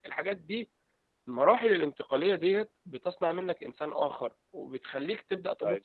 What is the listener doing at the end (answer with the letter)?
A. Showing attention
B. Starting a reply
A